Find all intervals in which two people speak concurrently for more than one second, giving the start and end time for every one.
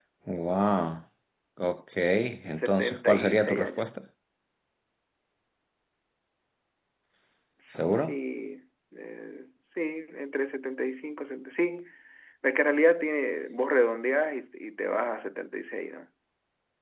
2.5-3.9

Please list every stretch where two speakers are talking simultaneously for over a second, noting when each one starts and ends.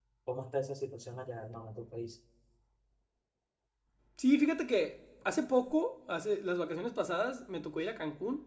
none

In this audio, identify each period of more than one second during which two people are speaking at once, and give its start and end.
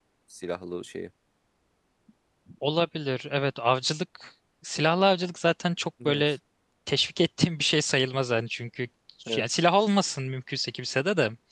none

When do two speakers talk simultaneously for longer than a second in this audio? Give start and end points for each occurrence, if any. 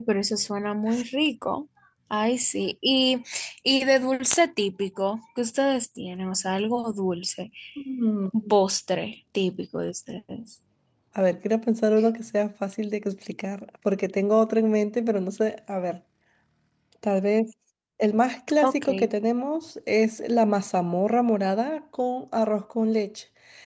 none

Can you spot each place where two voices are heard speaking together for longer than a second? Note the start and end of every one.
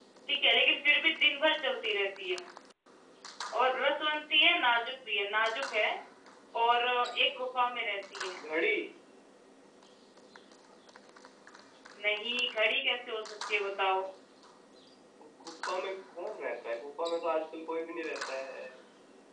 none

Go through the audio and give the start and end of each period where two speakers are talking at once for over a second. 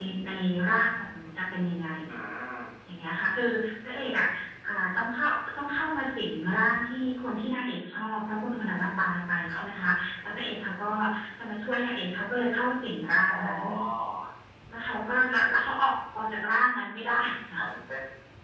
none

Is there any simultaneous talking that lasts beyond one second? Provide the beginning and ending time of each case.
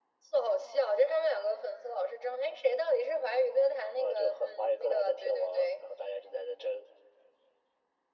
4.0-5.8

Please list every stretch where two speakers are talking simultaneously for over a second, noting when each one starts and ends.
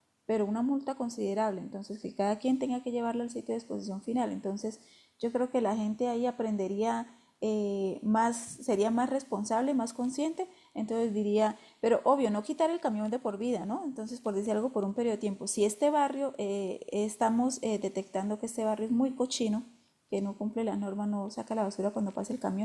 none

